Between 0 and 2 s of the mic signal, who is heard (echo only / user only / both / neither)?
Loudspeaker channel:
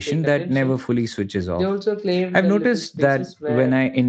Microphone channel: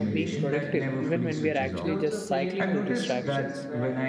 both